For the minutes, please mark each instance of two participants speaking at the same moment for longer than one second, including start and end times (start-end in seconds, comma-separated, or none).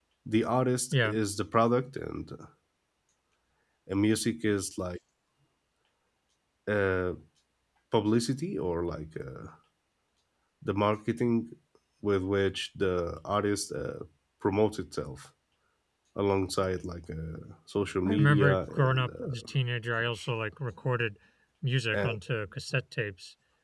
18.1-19.5